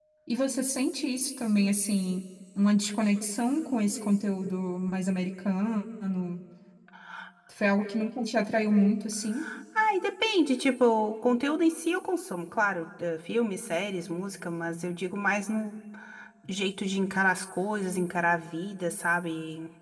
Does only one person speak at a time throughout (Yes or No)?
Yes